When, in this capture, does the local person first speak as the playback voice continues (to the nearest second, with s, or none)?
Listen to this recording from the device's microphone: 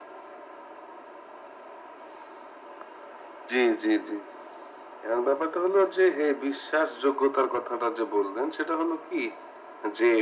none